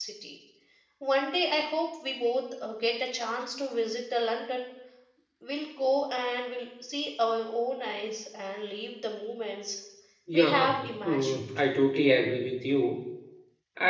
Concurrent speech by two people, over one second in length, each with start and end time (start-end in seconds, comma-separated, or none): 10.3-11.6